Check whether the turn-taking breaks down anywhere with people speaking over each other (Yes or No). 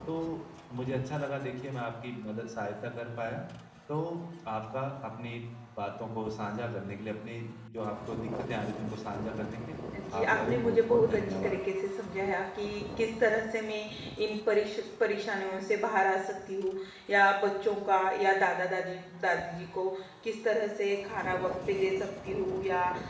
Yes